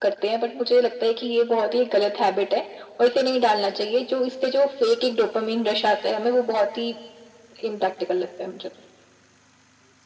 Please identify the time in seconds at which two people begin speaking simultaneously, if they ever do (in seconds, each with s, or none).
none